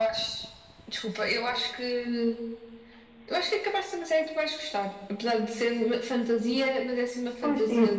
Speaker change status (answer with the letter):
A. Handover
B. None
A